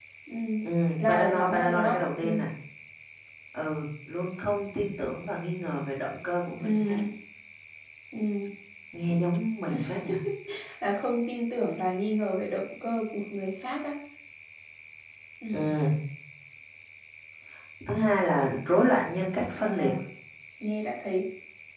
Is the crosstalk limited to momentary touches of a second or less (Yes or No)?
No